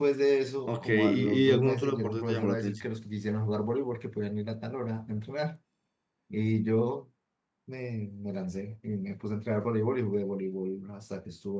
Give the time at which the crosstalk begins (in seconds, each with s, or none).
0.7 s